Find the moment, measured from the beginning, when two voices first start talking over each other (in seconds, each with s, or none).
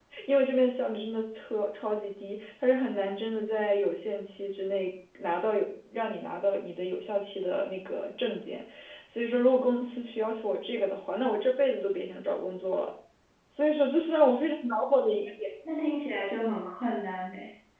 none